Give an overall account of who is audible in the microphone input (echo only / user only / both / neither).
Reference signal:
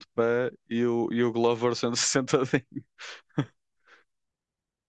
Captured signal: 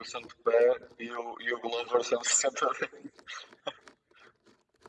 echo only